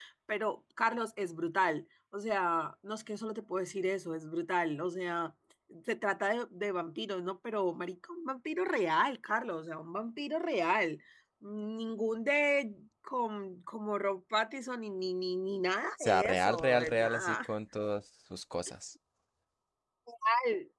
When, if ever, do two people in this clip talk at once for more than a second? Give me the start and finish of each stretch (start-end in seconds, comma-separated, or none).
16.0-17.5